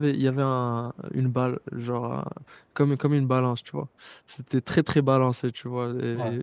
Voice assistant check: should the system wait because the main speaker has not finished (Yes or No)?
Yes